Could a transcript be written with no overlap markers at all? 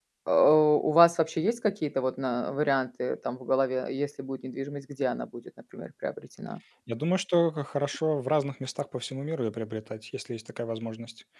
Yes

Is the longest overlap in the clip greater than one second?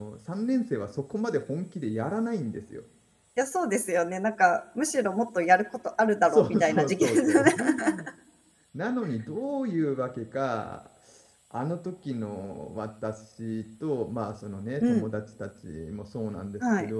Yes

